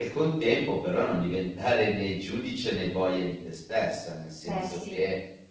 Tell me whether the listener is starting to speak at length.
No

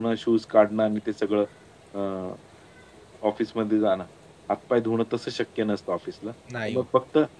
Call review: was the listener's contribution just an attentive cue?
Yes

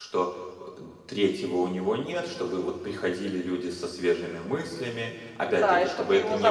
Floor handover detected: Yes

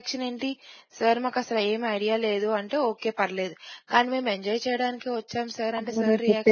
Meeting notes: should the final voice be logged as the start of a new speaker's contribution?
Yes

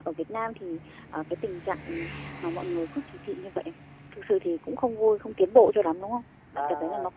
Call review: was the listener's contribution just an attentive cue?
No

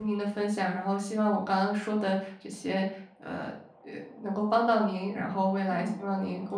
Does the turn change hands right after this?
No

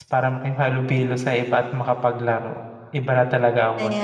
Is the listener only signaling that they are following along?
No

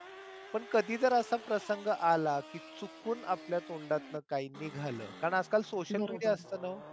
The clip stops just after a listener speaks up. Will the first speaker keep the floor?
Yes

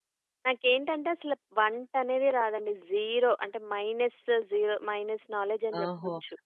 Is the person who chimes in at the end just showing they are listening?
No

